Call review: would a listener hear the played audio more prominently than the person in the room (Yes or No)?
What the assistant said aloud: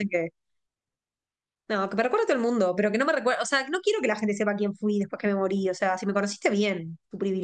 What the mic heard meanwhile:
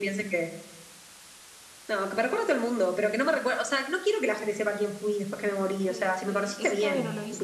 Yes